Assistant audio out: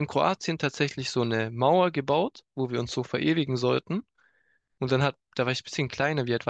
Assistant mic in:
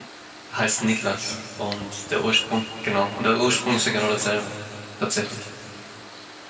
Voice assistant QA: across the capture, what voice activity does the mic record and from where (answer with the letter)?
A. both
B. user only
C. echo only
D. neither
B